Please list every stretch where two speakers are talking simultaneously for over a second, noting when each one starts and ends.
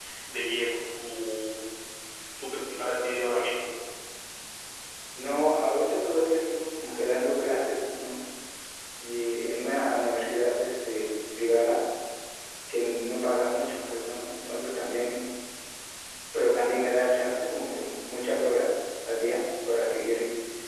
none

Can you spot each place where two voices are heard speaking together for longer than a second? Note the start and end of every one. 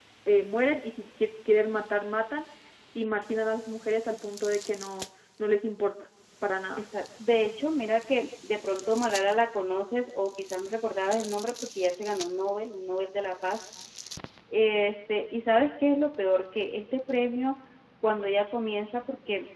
none

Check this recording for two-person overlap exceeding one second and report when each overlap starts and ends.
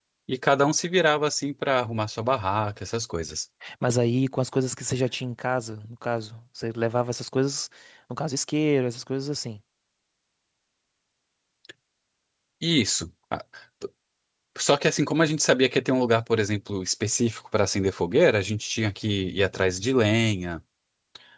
none

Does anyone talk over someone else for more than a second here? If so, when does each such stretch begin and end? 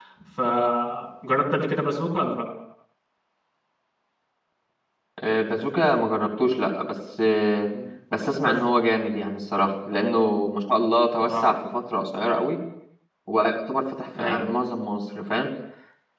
none

